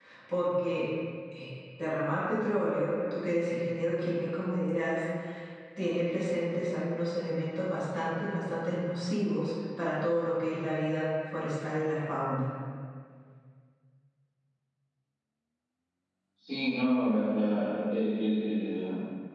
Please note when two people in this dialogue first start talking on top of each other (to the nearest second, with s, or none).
none